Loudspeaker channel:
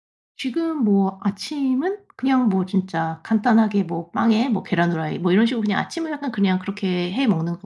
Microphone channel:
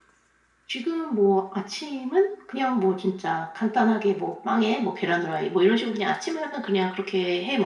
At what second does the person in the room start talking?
none

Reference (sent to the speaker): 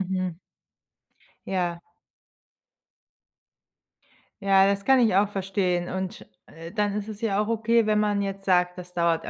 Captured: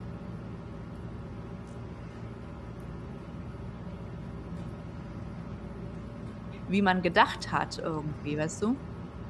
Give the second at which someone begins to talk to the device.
6.7 s

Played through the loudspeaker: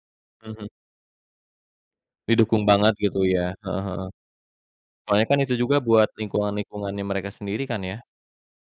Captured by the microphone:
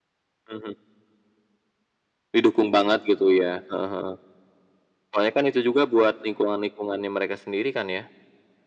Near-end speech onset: none

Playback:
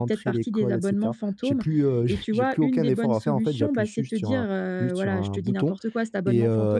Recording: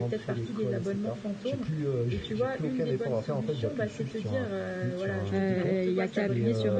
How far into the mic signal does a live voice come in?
5.3 s

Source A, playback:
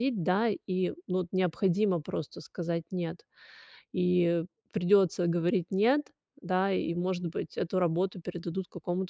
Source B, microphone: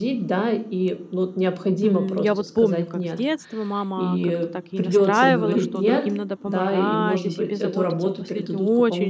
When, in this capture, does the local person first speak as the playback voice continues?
1.8 s

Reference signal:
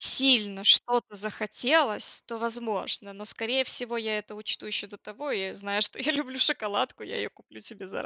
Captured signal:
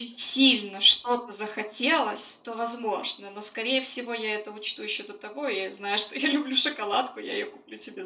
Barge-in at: none

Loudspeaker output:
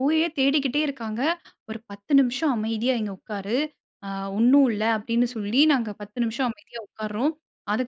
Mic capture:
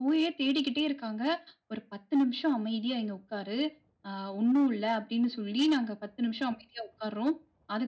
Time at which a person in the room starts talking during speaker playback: none

